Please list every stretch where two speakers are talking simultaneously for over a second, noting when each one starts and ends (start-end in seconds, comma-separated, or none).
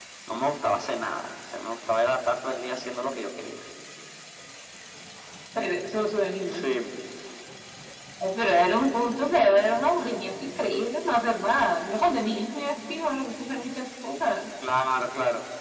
none